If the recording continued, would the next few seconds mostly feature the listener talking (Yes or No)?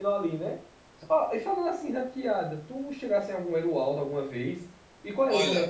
No